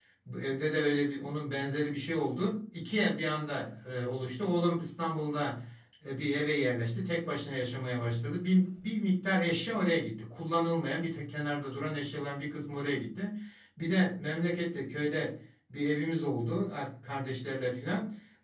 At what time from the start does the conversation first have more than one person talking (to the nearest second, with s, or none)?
none